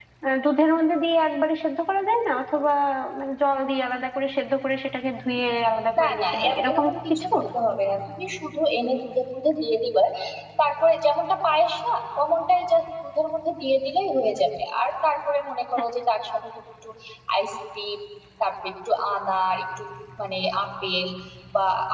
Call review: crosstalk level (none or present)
present